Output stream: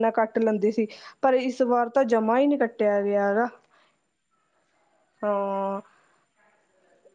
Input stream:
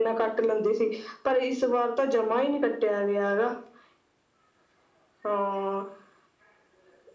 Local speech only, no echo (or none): none